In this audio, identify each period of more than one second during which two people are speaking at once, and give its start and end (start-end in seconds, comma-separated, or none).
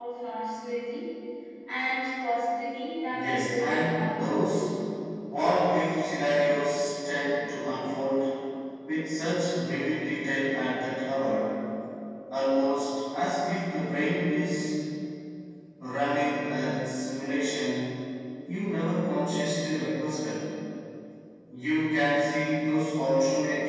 3.1-4.6